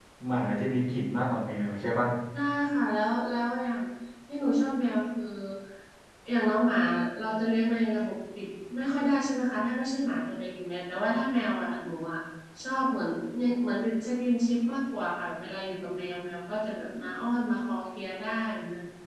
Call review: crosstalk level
none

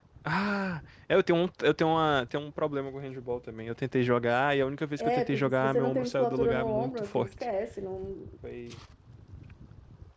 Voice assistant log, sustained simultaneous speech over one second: present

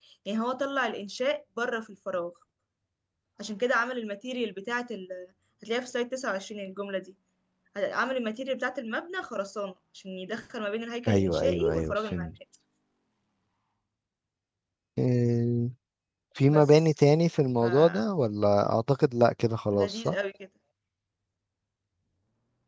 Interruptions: present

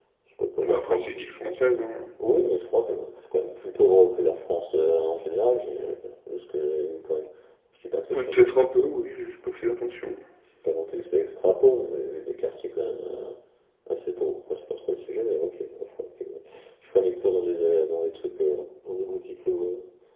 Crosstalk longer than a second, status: none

